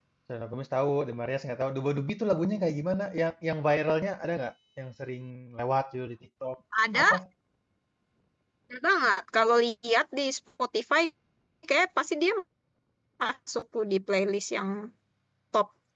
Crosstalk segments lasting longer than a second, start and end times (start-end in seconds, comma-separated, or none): none